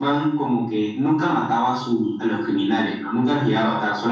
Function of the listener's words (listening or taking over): listening